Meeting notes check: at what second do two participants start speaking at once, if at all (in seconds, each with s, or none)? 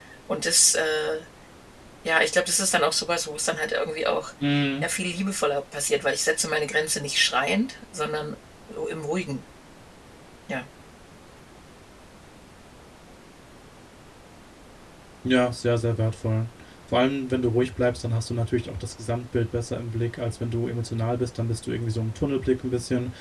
none